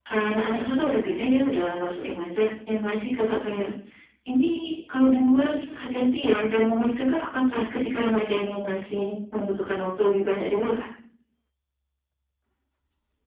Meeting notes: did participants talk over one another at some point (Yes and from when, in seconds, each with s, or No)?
No